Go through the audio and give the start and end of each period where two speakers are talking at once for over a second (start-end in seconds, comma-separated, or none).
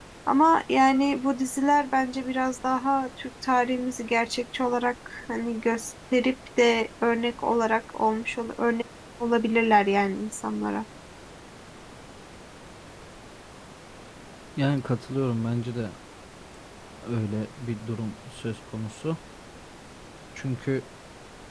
none